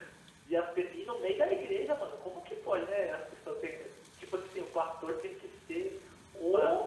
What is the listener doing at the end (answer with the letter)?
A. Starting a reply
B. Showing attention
B